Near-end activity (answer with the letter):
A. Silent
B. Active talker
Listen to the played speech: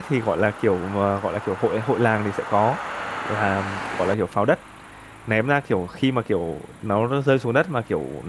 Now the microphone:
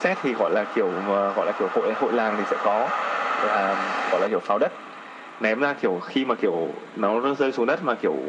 A